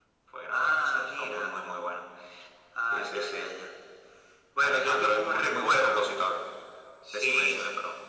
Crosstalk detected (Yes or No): Yes